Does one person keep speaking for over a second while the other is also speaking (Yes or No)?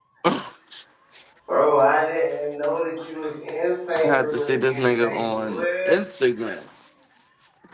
Yes